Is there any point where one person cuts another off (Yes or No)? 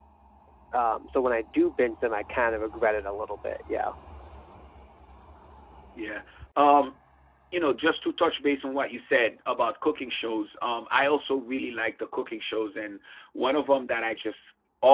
No